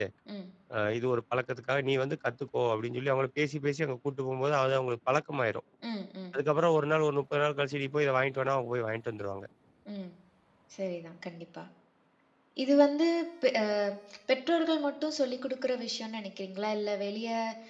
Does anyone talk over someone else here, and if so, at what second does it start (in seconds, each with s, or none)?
none